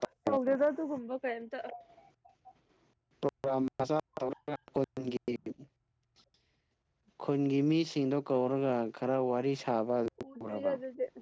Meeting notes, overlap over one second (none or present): none